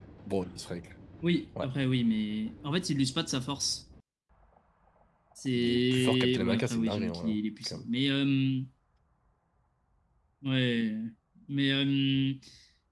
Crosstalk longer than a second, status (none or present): present